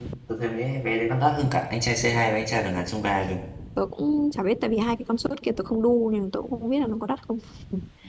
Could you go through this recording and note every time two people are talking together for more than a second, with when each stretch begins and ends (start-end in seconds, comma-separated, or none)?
none